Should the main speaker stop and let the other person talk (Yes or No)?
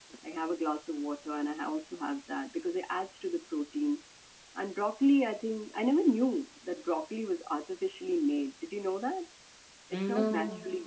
No